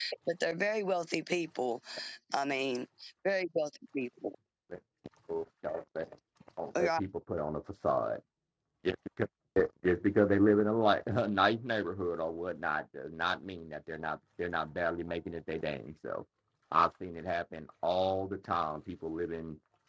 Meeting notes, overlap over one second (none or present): none